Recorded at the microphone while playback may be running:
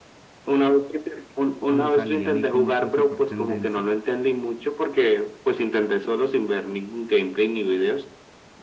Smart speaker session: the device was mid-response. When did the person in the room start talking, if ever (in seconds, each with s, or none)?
1.6 s